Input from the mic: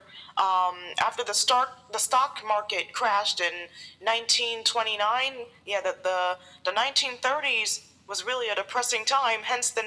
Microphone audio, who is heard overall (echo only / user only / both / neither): echo only